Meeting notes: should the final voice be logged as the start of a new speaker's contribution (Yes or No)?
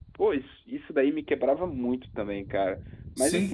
Yes